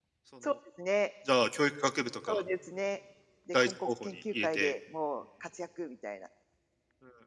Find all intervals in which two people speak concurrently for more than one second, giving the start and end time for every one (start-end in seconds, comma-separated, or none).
3.5-4.7